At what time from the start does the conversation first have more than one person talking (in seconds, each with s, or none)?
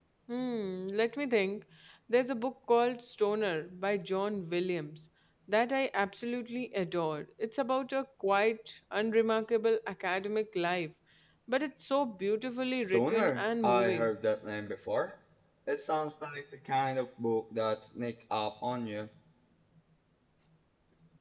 12.7 s